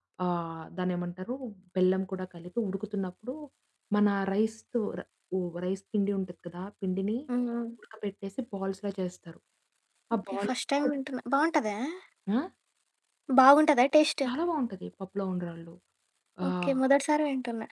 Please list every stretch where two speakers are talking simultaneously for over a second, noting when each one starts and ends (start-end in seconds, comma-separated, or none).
none